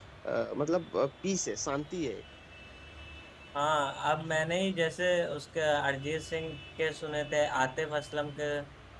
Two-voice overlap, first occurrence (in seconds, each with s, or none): none